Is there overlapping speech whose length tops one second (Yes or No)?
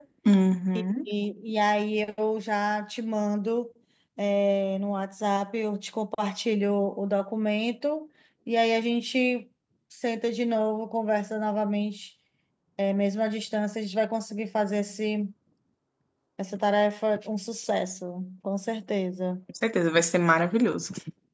No